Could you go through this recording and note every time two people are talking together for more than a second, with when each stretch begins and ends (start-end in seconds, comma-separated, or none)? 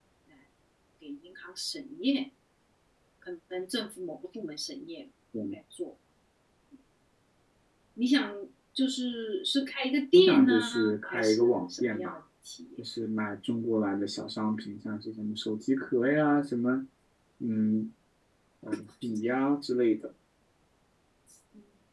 10.1-12.2